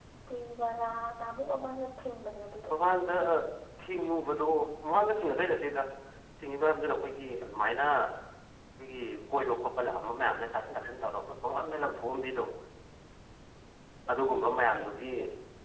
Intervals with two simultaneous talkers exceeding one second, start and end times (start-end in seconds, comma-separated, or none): none